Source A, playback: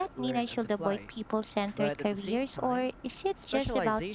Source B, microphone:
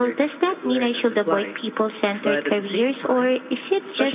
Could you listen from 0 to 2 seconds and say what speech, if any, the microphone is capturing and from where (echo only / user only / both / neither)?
echo only